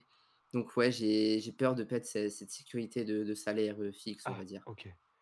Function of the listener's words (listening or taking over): taking over